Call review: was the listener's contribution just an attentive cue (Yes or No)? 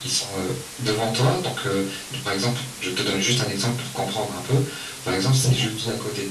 Yes